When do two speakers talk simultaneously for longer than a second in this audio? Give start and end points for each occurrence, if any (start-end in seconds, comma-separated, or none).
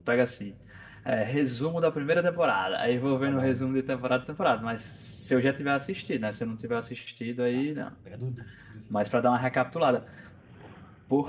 none